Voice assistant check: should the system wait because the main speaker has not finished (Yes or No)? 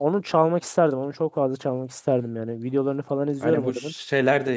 No